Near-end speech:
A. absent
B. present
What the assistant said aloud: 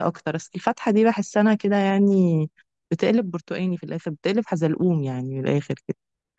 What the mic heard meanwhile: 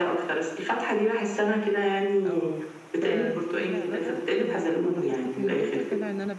B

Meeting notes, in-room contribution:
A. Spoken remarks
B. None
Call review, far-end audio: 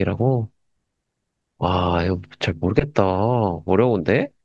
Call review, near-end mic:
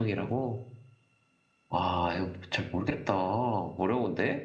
B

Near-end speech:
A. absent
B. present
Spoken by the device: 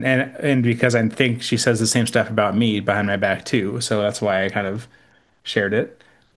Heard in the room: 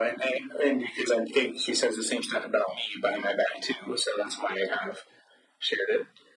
A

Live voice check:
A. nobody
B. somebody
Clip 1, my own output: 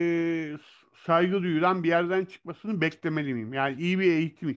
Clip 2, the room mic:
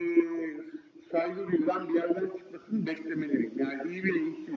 A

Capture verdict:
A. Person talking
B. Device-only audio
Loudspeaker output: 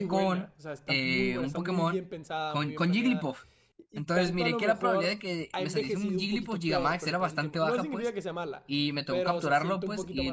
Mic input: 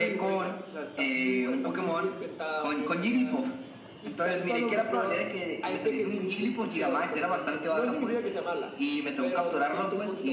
B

